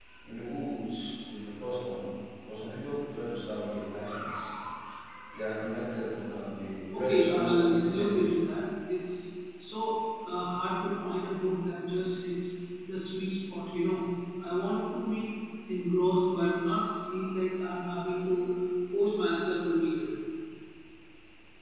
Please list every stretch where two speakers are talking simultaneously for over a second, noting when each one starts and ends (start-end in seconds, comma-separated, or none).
6.9-8.4